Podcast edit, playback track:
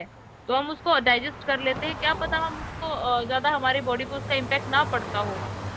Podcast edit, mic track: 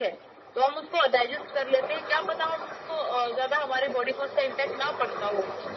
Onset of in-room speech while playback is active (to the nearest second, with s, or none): none